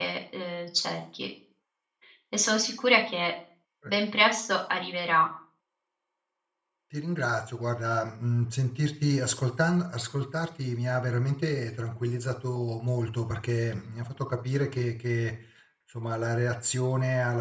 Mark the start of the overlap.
none

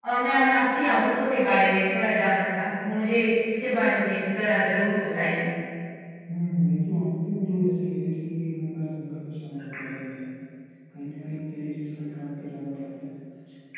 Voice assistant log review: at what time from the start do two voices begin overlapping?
none

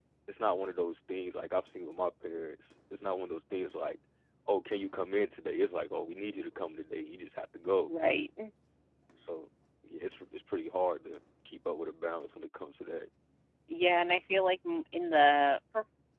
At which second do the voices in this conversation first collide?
none

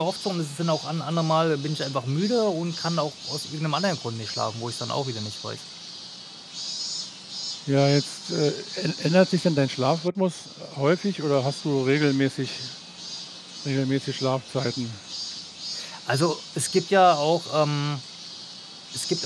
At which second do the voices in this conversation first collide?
none

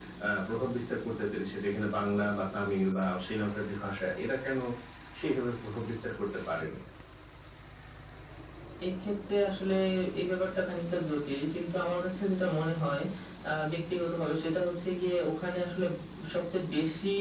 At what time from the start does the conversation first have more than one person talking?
none

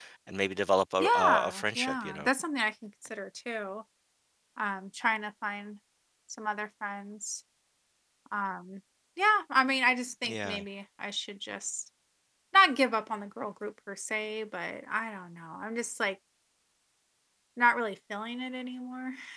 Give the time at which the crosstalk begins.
1.0 s

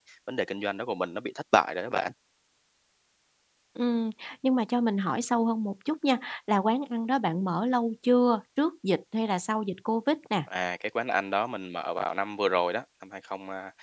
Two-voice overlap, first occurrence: none

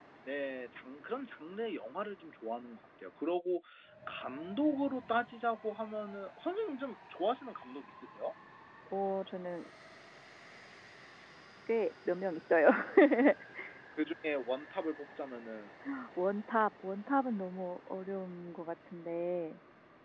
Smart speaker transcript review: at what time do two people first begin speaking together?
none

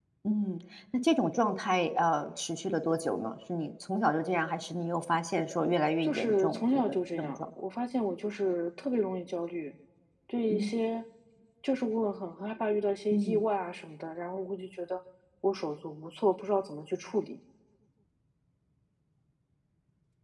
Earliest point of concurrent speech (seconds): 6.0 s

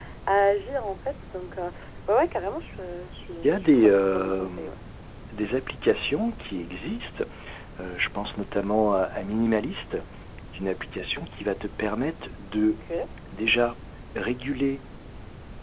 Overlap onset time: 3.4 s

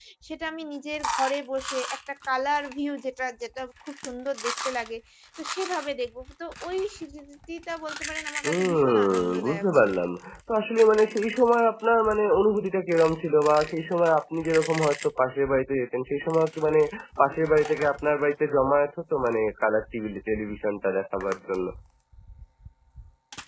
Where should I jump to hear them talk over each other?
8.4 s

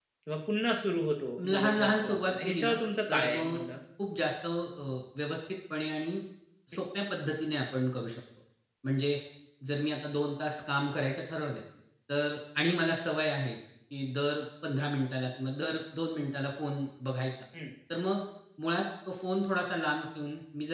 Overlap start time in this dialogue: 1.4 s

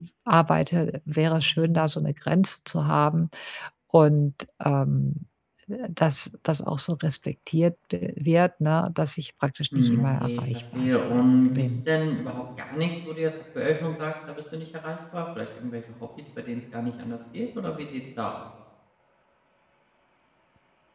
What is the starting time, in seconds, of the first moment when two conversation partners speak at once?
9.7 s

